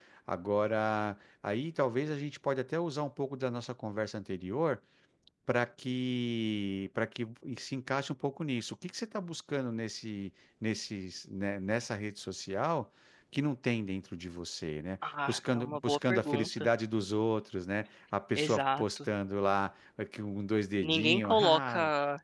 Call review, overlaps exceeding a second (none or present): present